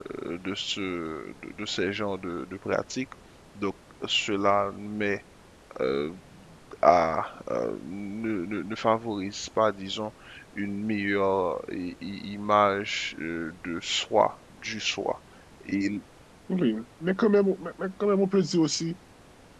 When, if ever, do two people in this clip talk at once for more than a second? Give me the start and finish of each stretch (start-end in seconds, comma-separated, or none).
none